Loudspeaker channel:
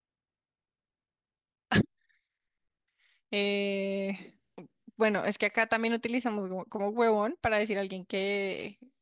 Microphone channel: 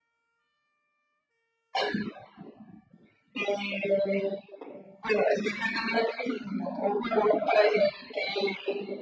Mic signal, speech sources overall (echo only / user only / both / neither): echo only